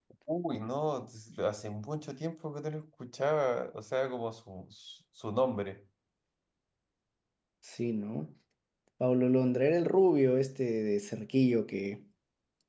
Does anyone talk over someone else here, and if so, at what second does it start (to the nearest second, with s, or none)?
none